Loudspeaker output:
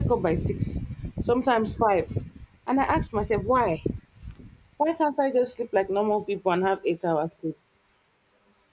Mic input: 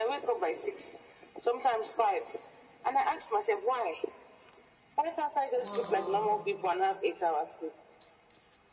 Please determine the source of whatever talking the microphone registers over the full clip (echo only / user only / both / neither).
both